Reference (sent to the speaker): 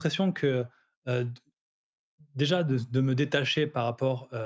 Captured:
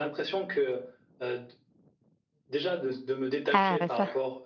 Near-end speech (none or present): present